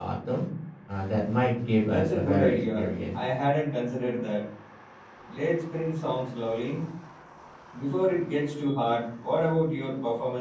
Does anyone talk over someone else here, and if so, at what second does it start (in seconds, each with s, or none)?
1.9 s